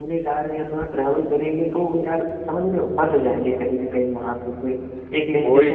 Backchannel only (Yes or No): No